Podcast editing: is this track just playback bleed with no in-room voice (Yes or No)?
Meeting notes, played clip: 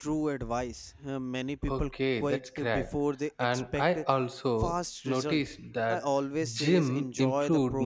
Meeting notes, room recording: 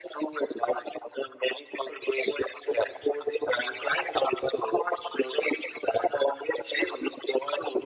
Yes